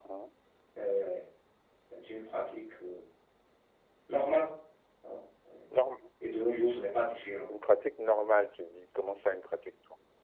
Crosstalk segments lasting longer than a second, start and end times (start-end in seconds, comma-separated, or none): none